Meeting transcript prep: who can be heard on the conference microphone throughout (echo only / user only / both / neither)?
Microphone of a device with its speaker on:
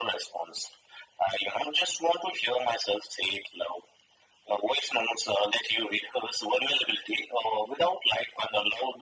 echo only